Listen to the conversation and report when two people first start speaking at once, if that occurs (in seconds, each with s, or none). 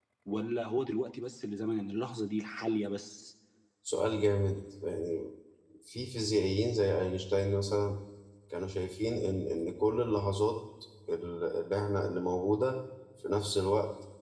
none